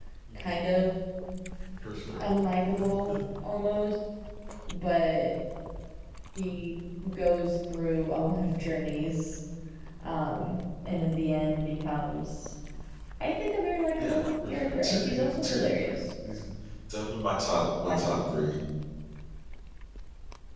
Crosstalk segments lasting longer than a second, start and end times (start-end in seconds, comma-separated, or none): 14.0-16.0